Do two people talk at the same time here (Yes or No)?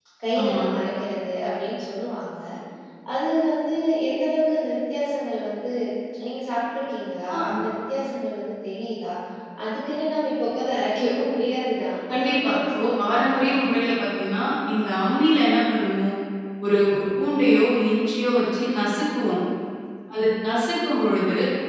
Yes